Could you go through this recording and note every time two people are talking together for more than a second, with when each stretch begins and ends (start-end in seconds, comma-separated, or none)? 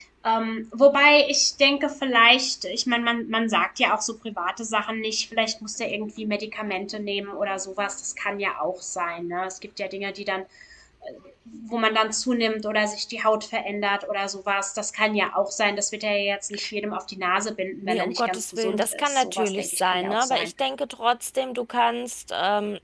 17.8-20.5